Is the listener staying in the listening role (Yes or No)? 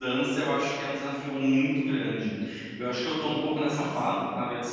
Yes